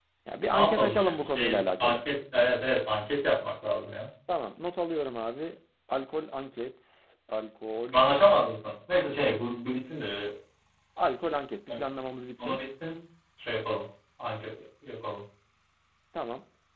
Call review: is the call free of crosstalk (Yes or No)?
No